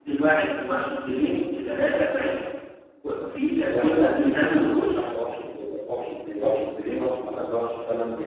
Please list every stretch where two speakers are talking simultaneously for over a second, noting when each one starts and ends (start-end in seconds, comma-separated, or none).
3.6-5.0